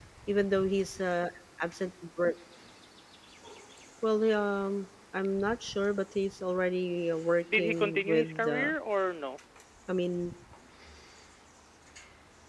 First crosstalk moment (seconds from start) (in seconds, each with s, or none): 7.5 s